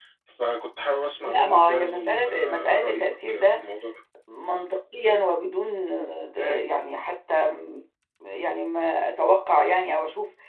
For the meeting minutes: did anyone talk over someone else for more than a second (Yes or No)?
Yes